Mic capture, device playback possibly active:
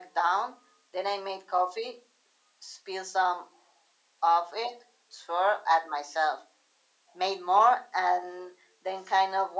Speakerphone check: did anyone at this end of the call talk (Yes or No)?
No